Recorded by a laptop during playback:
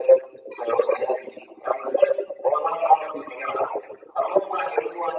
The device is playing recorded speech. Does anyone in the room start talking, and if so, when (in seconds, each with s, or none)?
none